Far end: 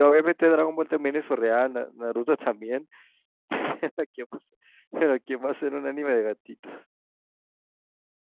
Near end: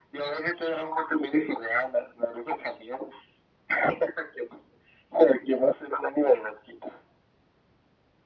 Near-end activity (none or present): none